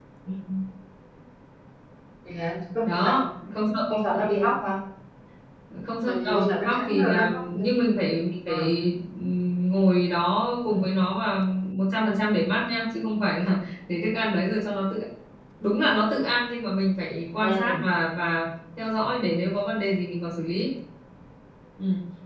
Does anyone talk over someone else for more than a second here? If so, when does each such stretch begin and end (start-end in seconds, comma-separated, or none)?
6.1-7.6